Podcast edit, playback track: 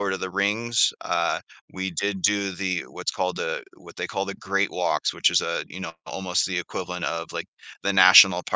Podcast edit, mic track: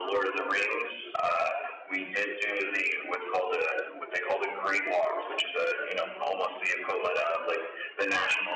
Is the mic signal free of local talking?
Yes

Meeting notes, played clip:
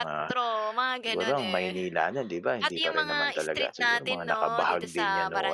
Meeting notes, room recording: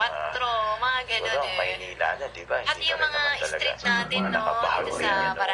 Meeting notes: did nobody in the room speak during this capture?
No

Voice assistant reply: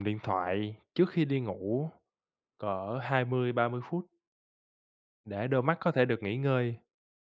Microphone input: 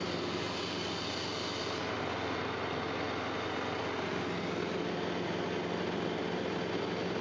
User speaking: No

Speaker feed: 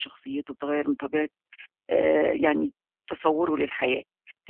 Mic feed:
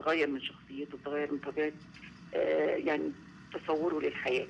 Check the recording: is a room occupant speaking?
No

